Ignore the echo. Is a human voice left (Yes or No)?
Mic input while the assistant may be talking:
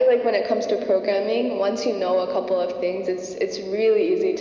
No